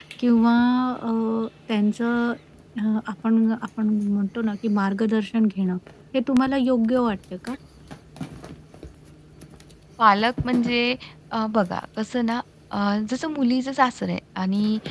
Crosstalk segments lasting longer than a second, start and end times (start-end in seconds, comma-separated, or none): none